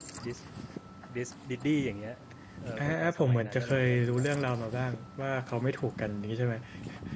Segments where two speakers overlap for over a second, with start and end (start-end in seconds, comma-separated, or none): 2.8-4.2